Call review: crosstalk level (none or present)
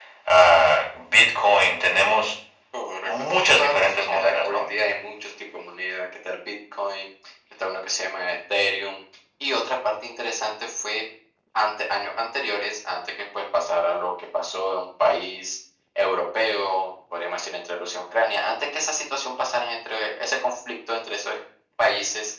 present